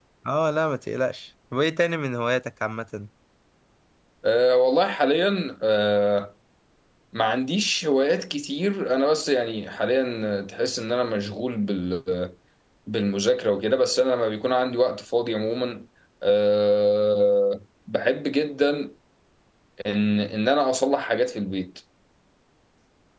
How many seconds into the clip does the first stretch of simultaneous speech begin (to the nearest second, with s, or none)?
none